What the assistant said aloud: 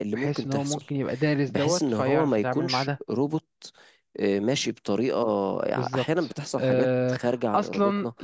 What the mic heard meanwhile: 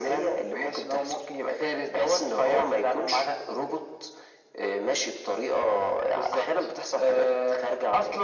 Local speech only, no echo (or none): none